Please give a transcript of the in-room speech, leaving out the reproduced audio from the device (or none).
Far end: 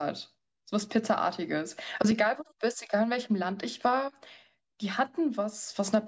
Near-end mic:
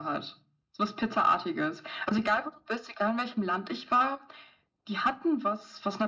none